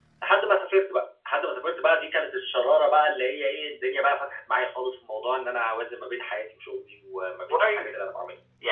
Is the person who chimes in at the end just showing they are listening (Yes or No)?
No